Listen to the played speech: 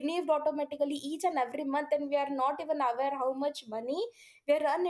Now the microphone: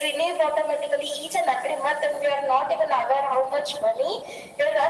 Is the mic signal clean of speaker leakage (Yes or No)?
No